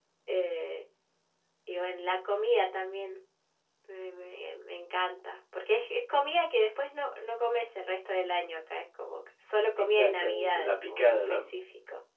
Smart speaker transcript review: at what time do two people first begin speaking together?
9.8 s

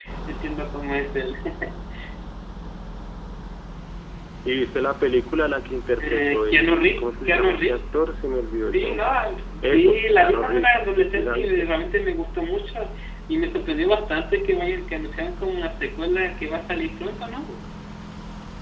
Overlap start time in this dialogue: 6.0 s

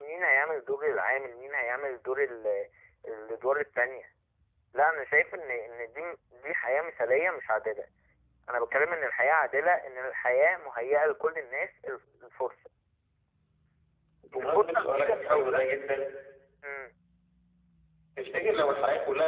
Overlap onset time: 14.4 s

